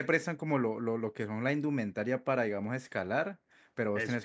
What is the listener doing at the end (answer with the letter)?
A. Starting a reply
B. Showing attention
B